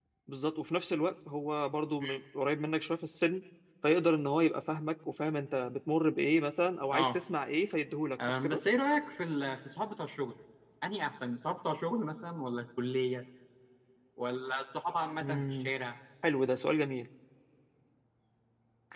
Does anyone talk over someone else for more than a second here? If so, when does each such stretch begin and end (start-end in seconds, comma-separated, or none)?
none